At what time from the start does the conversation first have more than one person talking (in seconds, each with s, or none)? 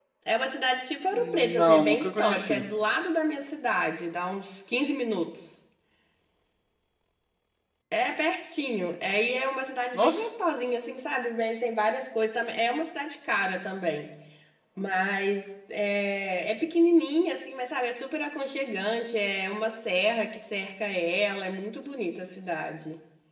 1.1 s